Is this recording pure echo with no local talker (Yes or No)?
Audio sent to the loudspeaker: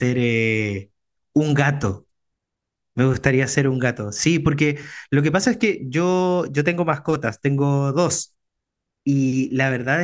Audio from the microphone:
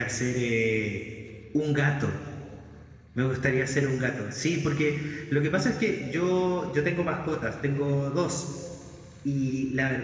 Yes